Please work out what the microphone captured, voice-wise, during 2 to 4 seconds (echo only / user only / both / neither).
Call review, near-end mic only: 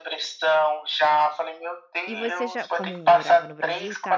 both